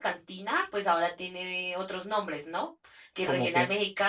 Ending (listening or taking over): listening